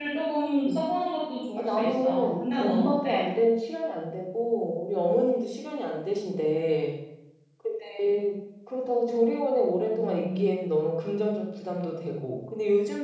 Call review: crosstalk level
present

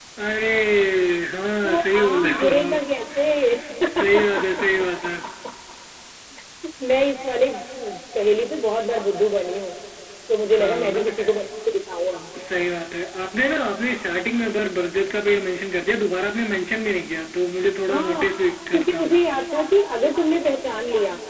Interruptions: present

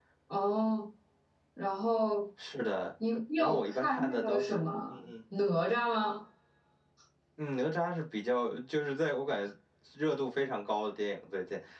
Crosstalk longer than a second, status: present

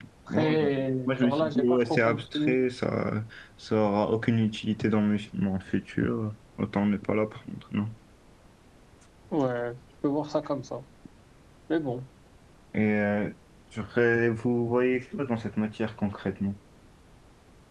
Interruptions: present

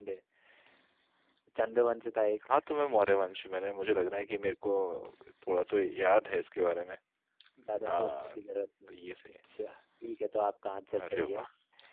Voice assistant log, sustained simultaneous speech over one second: none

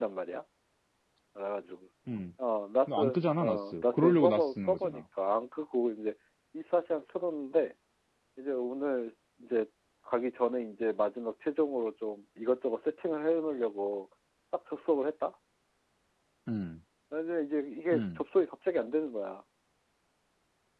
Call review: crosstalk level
present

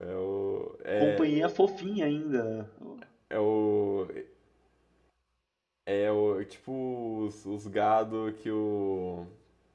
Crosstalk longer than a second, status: none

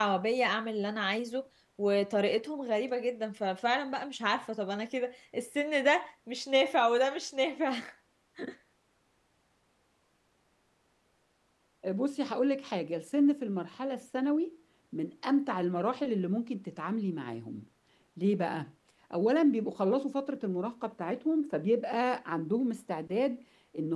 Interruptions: none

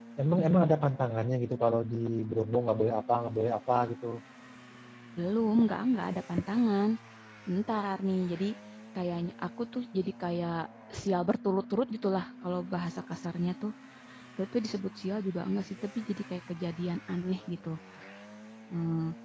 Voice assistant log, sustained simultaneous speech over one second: none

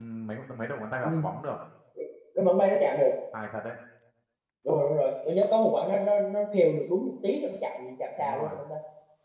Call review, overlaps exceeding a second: none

